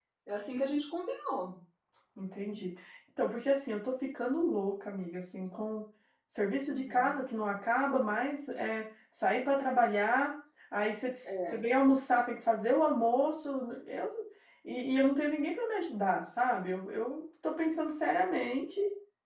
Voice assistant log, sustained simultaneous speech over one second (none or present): none